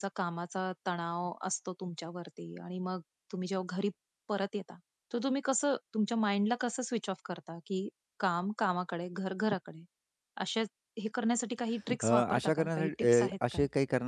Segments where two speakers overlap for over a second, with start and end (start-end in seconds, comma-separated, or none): 12.0-13.6